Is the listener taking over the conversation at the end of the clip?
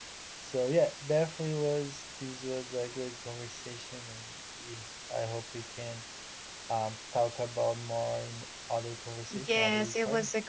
Yes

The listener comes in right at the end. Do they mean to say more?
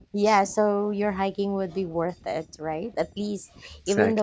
No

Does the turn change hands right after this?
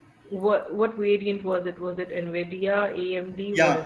Yes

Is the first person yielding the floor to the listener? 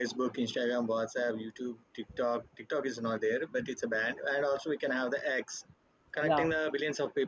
No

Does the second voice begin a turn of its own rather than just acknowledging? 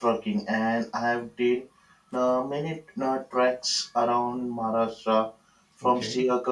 No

